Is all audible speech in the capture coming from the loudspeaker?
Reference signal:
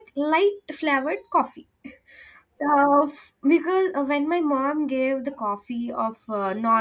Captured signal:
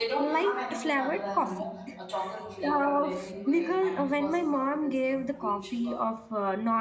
No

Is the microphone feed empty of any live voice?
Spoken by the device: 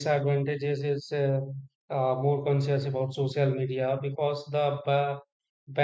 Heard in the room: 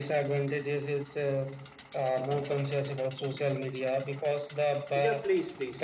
No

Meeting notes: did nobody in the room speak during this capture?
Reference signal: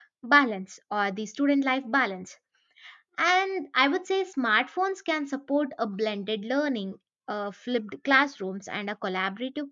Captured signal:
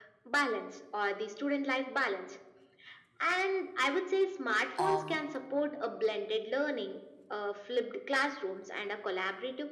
No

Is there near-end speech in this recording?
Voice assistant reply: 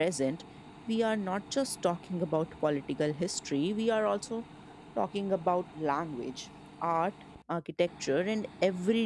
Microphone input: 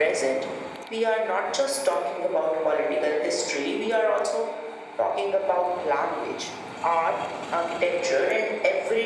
No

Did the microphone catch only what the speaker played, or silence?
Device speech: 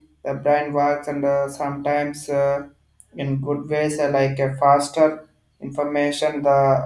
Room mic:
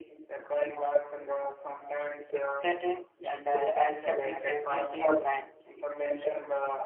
No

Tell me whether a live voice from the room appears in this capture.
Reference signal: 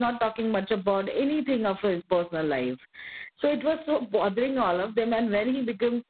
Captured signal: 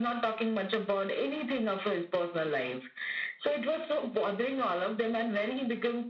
No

